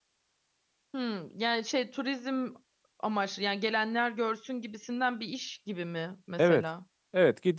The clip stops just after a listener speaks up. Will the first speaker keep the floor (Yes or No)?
No